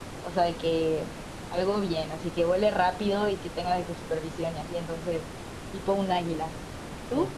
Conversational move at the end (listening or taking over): taking over